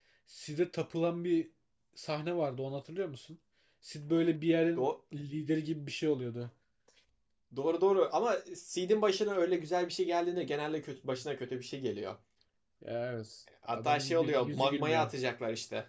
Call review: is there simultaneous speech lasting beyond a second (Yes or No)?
Yes